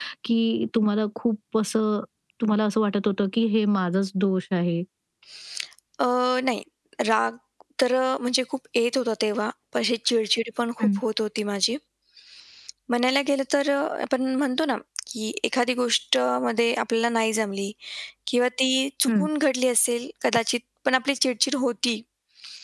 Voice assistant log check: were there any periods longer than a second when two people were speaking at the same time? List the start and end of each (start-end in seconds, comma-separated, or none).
none